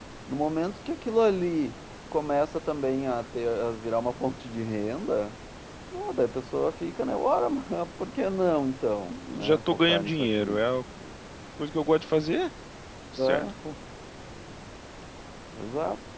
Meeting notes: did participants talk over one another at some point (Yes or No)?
Yes